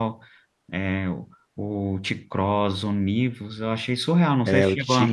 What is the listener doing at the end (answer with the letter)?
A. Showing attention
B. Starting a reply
B